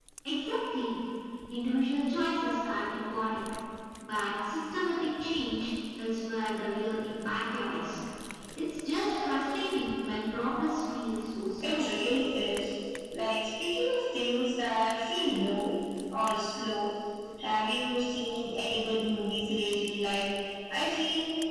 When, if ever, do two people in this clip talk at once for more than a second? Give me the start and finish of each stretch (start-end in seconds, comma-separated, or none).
none